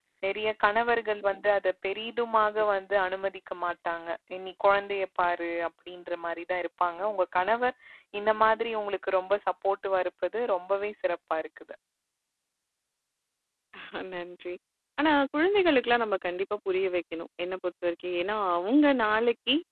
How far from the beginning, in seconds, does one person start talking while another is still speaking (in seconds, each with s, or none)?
none